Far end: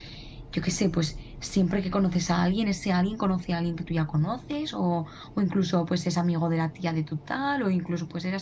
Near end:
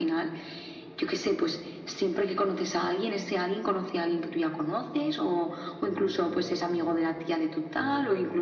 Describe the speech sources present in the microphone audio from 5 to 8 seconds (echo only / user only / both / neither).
both